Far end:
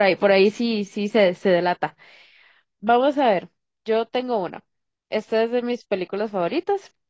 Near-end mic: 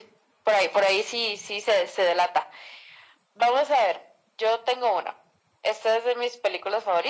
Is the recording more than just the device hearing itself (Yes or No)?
No